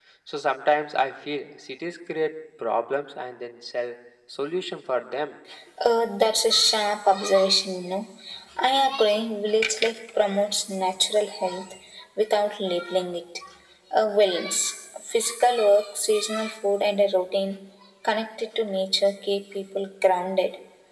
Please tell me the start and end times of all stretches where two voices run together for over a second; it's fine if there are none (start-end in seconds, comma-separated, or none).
none